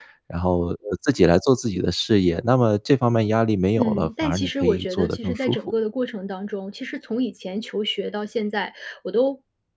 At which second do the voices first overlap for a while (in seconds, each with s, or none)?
3.8 s